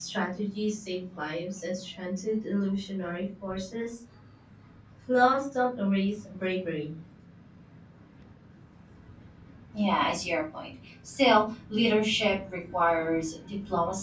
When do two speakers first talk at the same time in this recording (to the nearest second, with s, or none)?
none